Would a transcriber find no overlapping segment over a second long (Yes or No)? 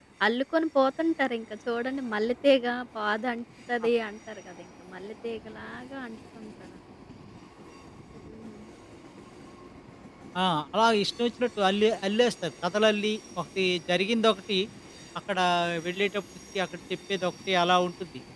Yes